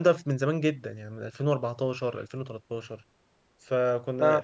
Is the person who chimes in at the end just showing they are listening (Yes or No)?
Yes